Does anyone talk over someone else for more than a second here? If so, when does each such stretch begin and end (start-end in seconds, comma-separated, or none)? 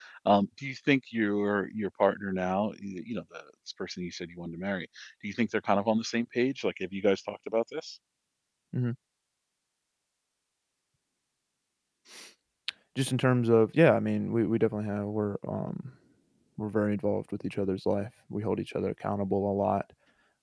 none